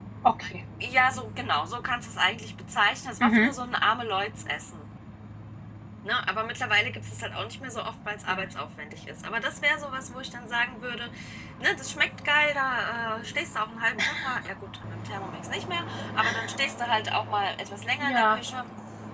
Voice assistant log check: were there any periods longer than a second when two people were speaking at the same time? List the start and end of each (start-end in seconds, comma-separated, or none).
none